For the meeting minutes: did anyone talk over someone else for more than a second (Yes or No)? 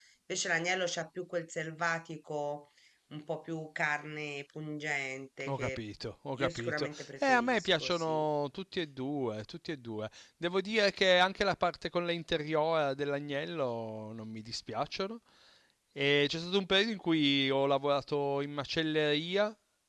Yes